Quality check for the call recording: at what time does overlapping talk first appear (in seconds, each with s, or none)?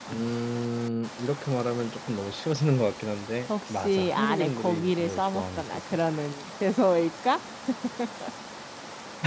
3.5 s